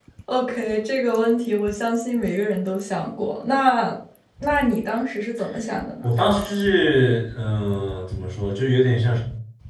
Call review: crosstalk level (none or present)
none